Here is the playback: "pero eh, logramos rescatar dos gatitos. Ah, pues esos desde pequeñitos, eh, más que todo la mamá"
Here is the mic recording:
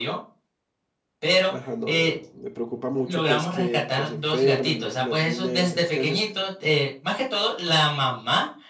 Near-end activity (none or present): present